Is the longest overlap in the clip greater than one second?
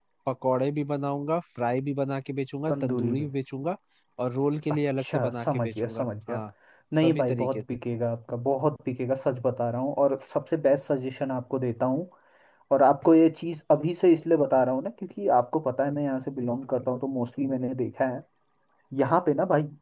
Yes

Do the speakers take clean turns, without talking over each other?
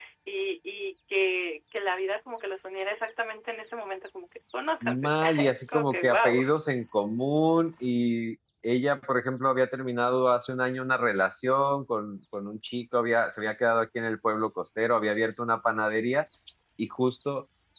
No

